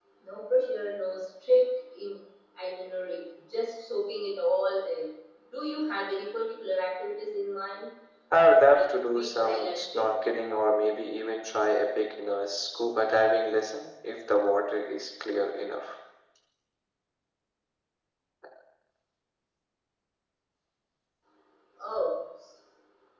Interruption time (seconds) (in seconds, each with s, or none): 8.6 s